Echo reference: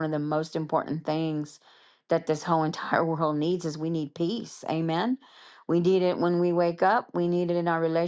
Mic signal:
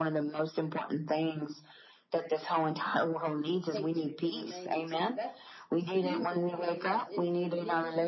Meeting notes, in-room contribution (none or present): present